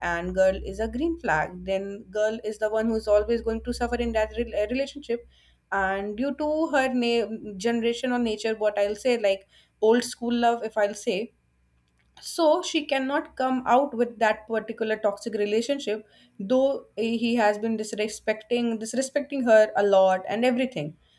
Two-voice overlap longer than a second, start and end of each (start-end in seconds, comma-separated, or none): none